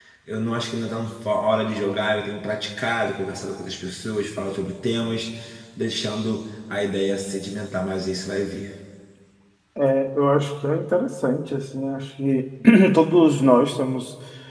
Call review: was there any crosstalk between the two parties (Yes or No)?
No